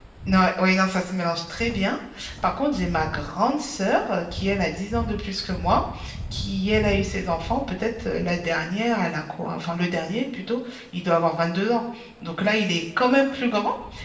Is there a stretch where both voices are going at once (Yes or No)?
No